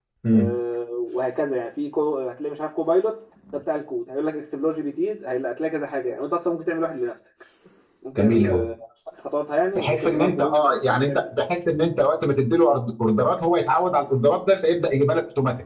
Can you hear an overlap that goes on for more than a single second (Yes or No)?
Yes